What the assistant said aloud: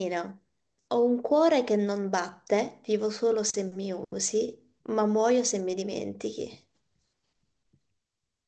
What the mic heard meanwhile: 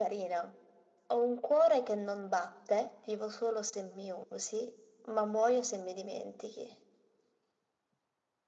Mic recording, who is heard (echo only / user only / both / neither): echo only